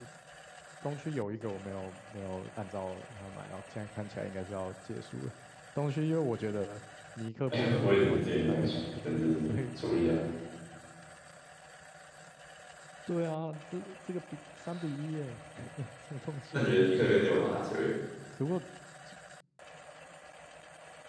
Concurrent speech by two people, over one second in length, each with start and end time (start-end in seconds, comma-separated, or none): 7.5-8.8